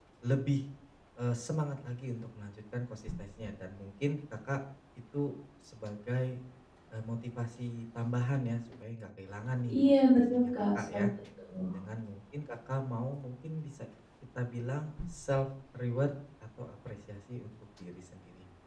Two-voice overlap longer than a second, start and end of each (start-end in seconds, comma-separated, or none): 9.8-11.0